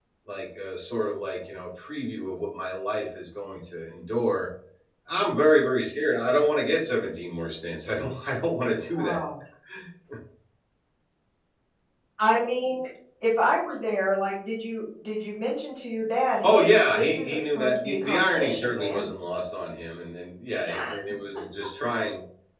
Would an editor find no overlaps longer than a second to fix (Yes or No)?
No